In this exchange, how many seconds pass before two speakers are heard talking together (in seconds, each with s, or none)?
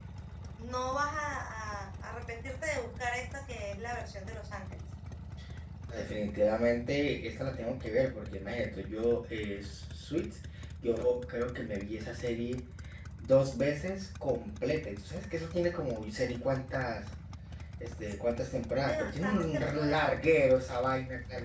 18.7 s